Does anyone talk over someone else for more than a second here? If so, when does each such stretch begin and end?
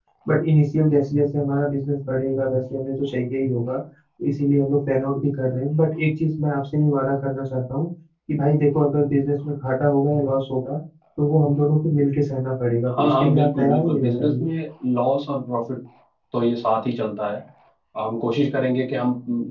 12.9-14.5

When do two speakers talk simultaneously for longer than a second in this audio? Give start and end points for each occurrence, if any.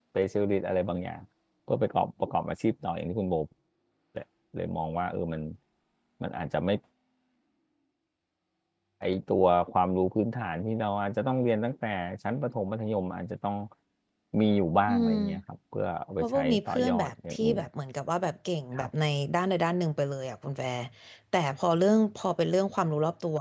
16.2-17.6

